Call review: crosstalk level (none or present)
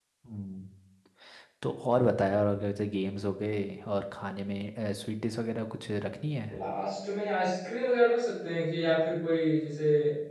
none